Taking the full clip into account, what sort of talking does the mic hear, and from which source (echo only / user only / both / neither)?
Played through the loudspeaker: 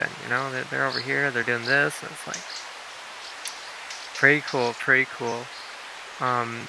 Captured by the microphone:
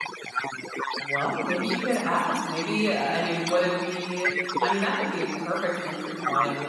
both